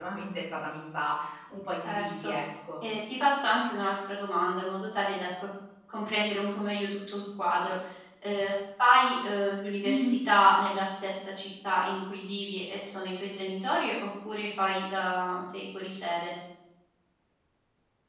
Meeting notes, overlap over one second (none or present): none